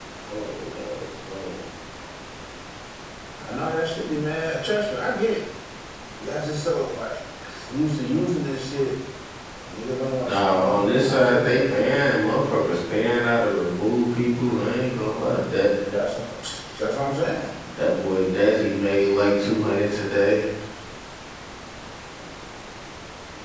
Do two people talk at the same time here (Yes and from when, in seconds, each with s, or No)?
Yes, from 10.2 s